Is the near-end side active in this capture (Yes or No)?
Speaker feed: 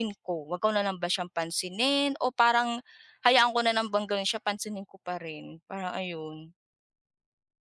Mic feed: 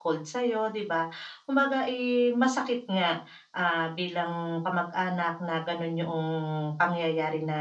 Yes